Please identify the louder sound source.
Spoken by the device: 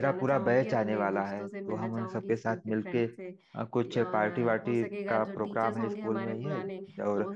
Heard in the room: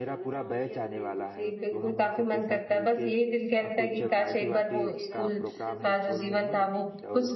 user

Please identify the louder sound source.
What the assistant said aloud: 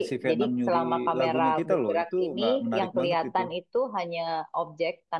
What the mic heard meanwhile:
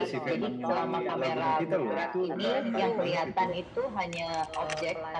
echo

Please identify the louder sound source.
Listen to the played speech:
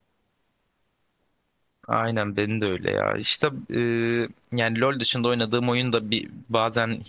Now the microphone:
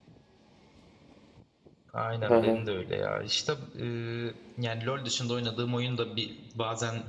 user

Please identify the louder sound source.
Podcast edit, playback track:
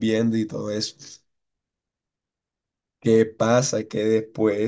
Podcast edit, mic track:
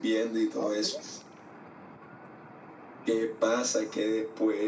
echo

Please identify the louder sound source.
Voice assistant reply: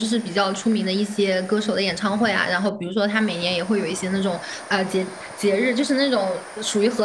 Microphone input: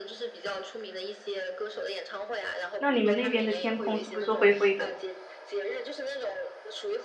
user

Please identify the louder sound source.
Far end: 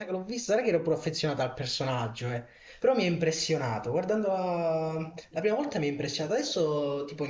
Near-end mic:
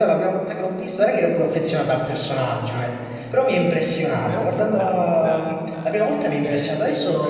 echo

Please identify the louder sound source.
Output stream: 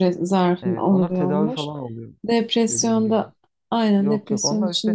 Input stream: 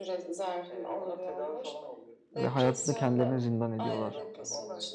user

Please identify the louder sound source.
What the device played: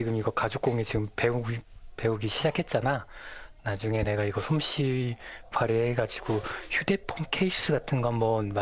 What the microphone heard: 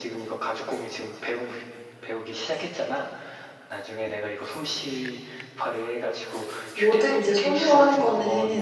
user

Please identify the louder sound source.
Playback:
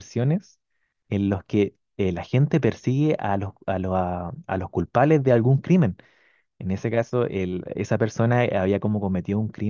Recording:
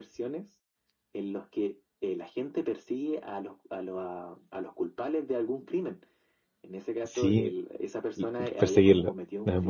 user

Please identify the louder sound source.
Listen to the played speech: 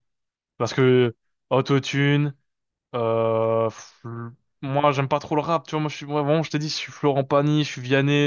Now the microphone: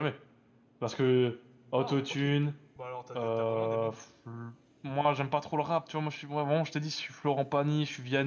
echo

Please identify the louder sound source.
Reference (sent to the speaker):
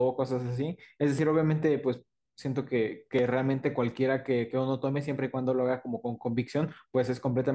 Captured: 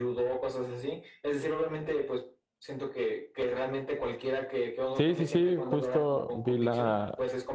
user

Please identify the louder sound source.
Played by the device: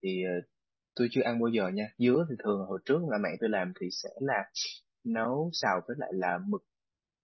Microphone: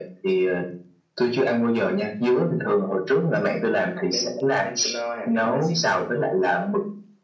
echo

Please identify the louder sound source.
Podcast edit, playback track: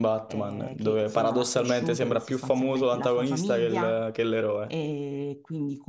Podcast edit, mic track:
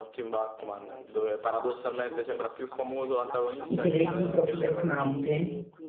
user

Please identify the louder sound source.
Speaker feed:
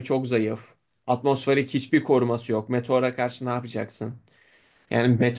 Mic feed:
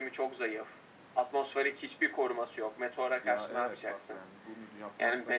echo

